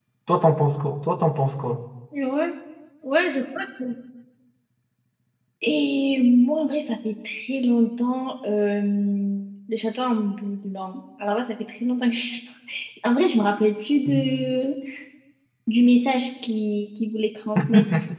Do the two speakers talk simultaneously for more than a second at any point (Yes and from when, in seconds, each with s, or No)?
No